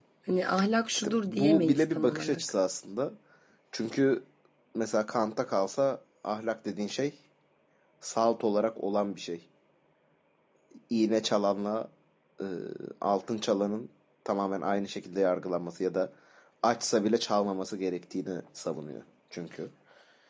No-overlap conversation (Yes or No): No